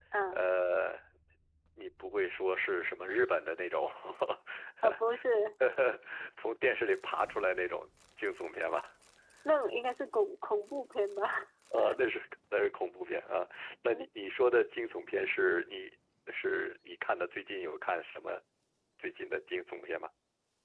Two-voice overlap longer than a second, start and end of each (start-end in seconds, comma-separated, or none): none